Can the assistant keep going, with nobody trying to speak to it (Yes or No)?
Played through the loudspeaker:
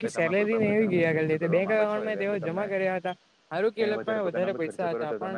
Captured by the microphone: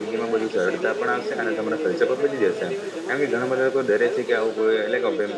No